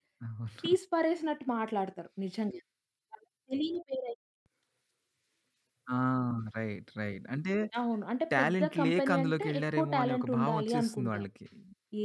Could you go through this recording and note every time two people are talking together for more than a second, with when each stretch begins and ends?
8.4-11.3

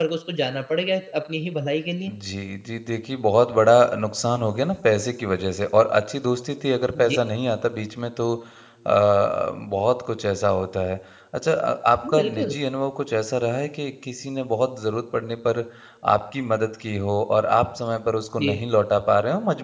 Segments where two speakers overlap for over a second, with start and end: none

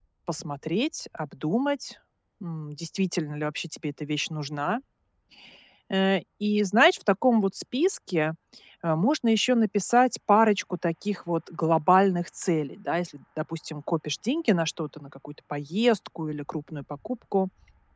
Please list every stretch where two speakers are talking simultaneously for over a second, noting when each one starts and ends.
none

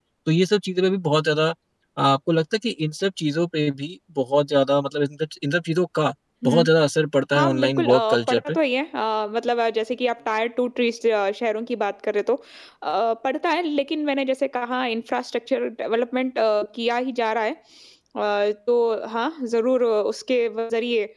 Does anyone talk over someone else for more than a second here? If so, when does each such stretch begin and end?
7.3-8.5

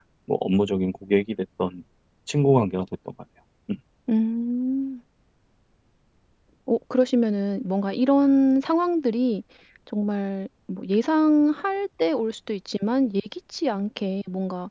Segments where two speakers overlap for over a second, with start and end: none

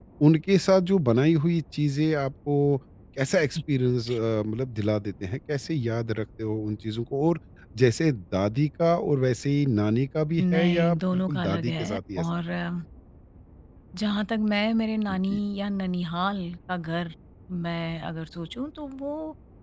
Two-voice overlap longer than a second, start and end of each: 10.4-12.2

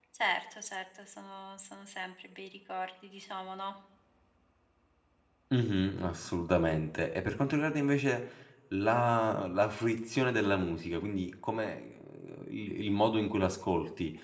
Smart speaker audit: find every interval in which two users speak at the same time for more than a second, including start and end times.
none

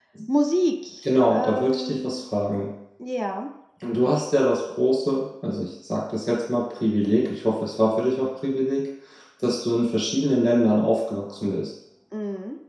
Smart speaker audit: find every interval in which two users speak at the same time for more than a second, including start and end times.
1.0-2.2

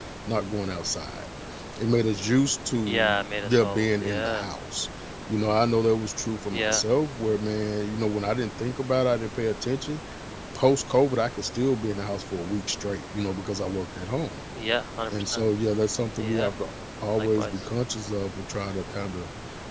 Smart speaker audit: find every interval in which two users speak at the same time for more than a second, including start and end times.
2.8-4.5

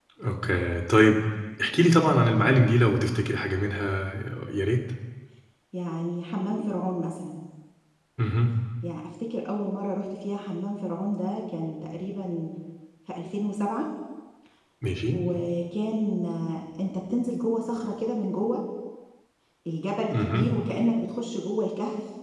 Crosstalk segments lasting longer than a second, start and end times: none

